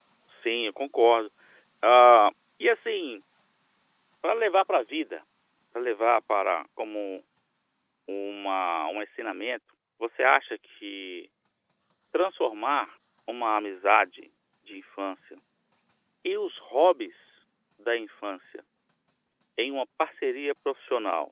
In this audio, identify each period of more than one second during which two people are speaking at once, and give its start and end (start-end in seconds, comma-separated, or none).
none